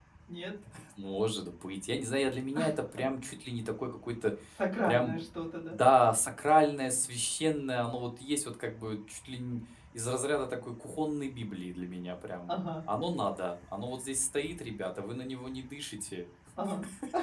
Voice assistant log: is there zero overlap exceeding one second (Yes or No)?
Yes